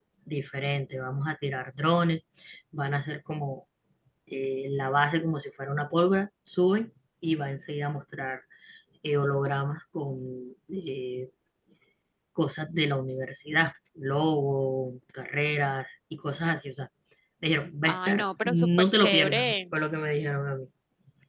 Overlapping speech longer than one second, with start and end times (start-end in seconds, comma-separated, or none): 17.9-19.5